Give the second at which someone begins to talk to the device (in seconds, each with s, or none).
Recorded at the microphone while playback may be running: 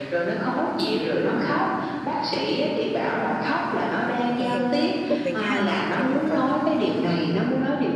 4.3 s